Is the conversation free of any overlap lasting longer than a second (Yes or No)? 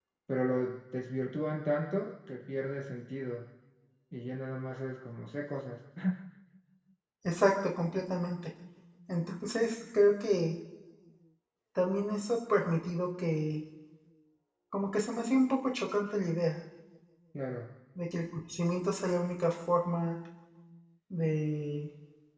Yes